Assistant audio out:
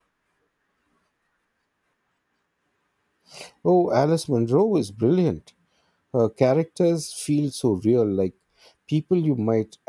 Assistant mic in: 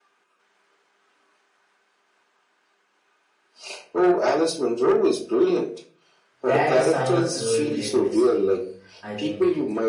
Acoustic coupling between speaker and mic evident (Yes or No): Yes